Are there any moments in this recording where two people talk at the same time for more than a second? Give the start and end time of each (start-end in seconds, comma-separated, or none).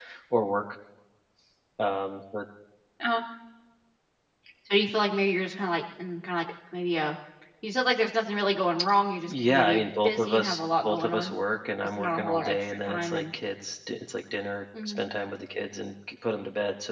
9.3-11.3, 12.0-13.2